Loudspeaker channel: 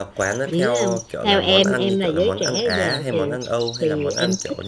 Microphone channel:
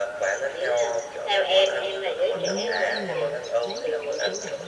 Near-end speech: present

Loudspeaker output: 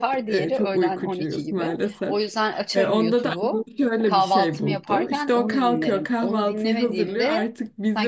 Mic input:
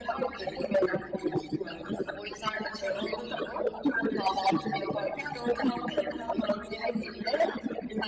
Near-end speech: none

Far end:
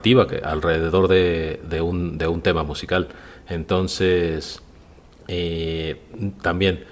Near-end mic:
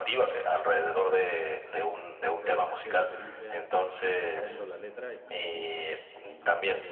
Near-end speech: present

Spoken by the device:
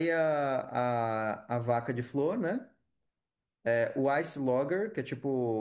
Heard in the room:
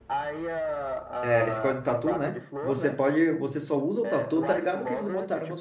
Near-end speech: present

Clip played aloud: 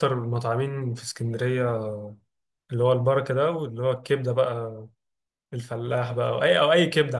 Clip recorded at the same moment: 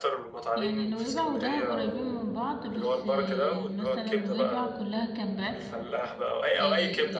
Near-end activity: present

